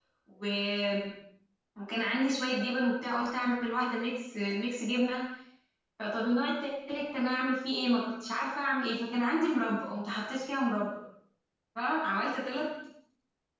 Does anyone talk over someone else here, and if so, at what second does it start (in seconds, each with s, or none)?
none